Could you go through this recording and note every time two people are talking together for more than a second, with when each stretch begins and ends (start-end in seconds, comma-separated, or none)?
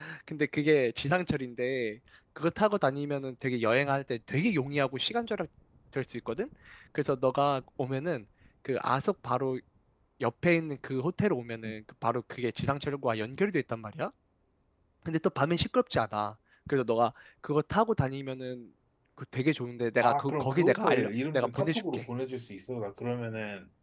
20.0-22.1